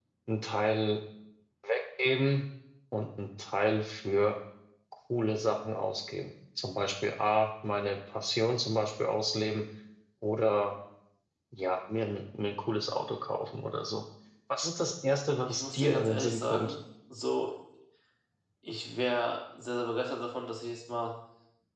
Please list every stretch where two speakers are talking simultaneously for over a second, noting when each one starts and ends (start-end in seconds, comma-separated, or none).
15.5-16.7